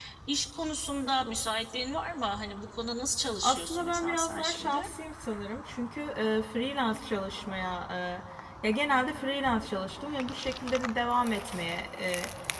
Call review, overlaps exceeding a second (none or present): present